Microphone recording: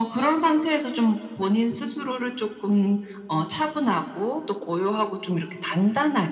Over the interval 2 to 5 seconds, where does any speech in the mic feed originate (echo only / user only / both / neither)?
echo only